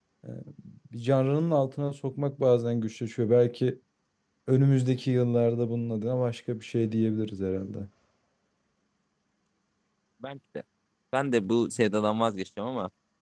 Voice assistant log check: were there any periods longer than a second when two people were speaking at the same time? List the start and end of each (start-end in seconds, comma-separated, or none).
none